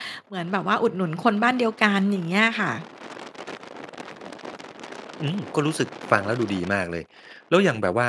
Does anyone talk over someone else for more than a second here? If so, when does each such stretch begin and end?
none

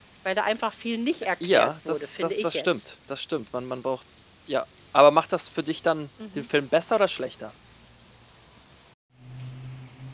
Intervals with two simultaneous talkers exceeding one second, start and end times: 1.4-2.8

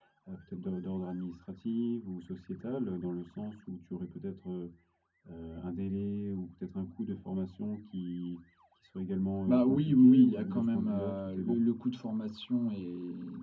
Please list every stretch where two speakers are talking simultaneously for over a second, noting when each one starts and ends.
9.5-11.6

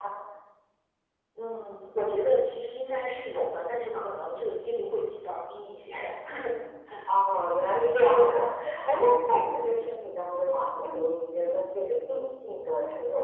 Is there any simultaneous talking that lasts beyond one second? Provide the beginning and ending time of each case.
none

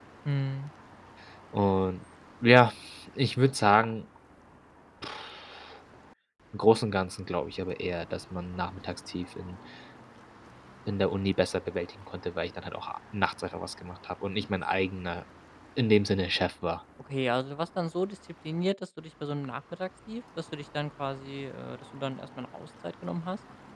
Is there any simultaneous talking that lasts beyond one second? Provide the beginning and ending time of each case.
none

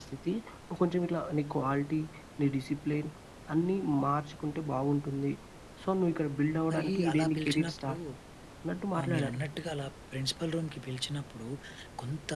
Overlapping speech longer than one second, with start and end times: 6.7-7.9

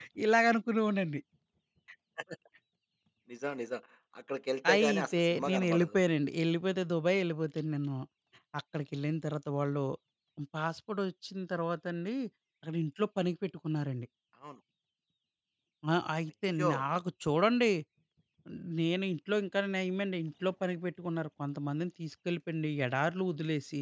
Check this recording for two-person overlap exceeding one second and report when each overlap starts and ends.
4.7-6.0

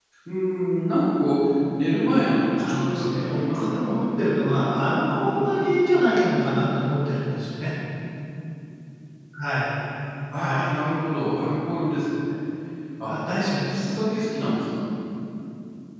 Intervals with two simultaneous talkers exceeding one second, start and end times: 2.6-4.0

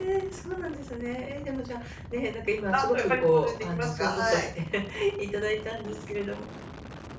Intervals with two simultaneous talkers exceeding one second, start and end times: 2.7-4.5

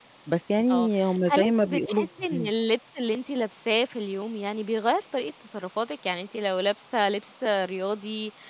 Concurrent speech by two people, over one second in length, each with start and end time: 1.3-2.5

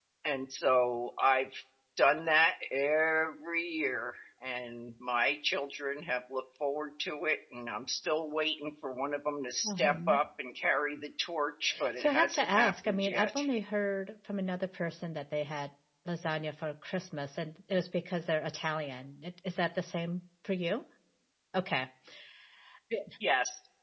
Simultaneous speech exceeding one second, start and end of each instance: 12.0-13.3

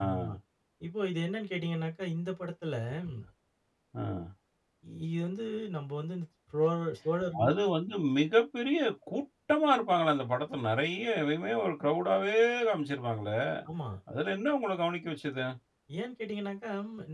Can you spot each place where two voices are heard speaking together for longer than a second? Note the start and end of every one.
none

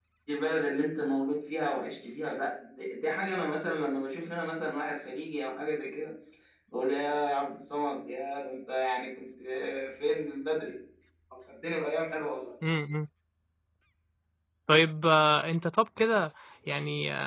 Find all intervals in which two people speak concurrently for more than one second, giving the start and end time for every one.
none

